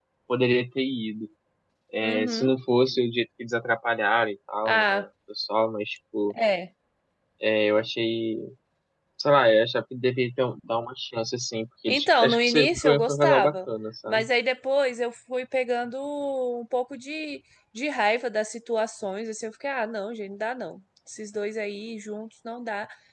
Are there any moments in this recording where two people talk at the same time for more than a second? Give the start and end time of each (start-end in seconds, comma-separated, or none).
11.9-13.6